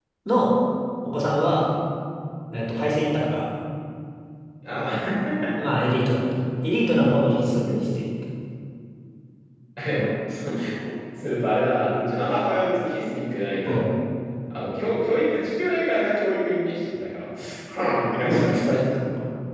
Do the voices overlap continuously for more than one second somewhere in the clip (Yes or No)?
No